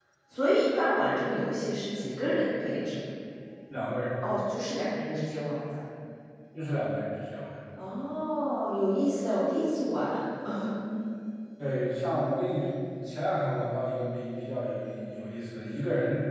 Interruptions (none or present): none